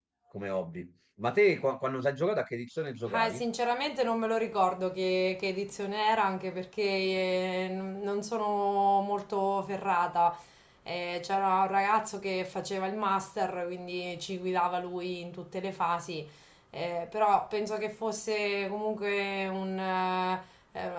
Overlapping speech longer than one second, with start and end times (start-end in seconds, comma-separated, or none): none